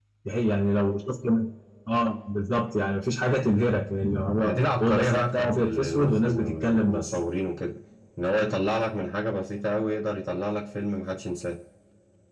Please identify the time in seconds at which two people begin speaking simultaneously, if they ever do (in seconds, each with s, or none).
4.4 s